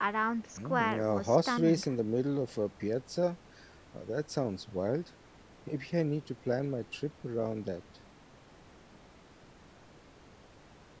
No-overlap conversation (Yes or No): No